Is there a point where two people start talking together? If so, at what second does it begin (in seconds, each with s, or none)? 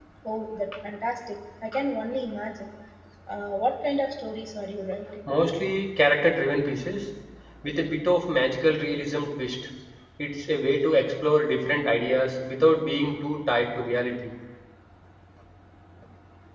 none